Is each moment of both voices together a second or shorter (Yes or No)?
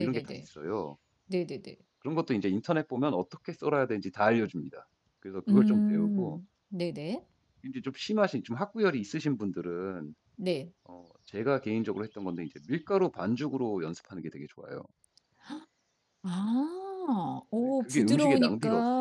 No